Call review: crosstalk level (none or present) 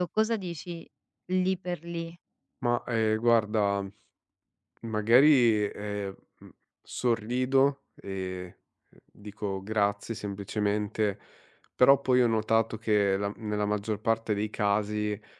none